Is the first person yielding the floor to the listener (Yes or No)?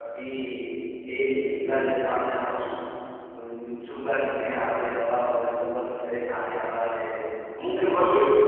No